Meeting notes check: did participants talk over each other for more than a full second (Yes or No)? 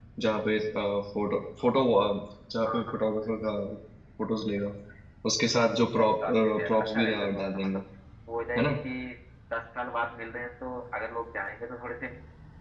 Yes